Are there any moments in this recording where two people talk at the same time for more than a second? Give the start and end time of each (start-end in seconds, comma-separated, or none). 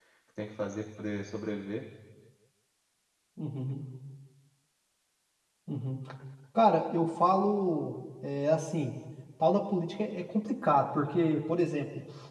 none